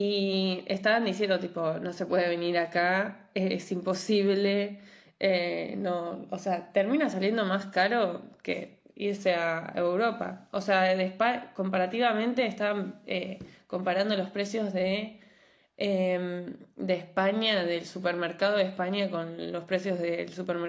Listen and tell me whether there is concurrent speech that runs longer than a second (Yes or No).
No